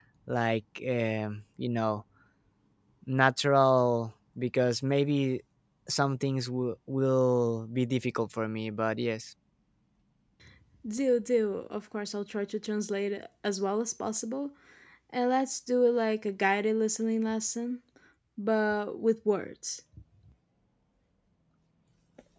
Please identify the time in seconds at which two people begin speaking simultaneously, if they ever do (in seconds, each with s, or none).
none